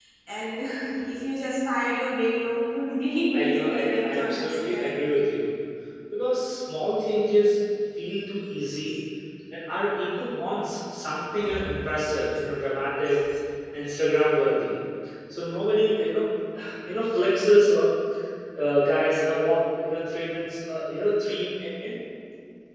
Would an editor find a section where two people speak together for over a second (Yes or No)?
Yes